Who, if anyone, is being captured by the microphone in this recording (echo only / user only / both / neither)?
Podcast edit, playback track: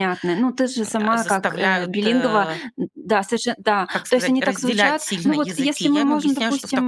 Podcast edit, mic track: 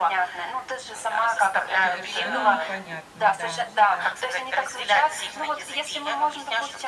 both